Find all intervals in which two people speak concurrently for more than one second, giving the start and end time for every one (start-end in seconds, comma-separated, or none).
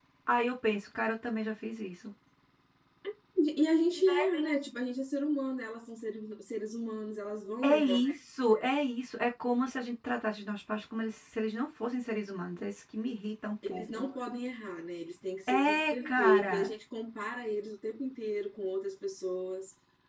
15.5-16.7